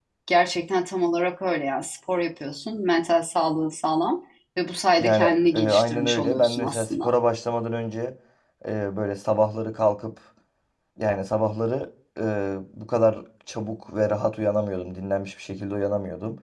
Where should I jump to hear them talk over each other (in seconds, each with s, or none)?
5.0 s